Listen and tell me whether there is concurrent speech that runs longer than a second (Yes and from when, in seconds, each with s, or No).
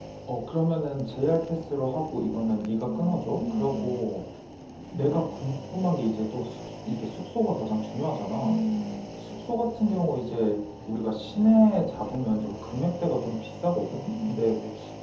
Yes, from 2.6 s